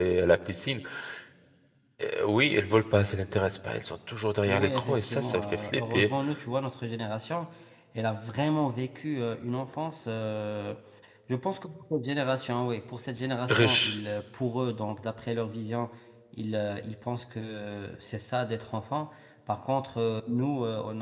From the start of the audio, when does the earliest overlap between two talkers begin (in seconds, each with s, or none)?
4.5 s